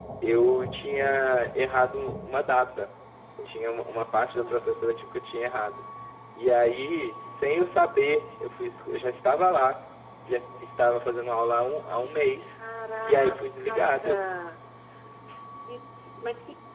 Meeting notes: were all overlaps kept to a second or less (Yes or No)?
Yes